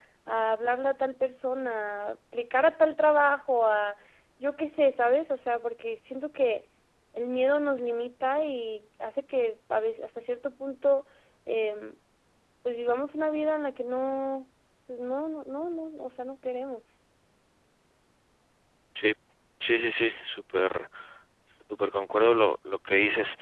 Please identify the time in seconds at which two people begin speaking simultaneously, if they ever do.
none

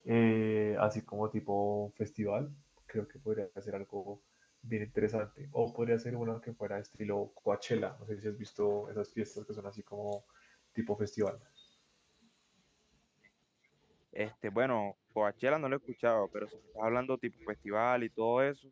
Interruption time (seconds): none

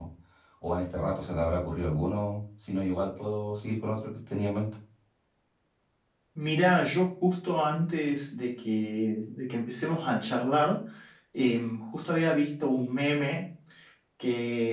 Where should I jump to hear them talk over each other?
none

